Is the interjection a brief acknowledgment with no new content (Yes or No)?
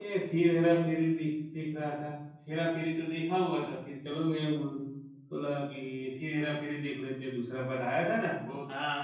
No